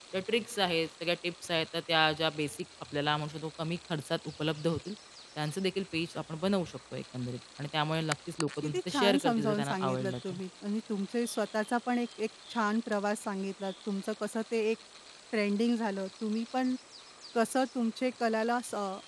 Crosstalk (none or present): present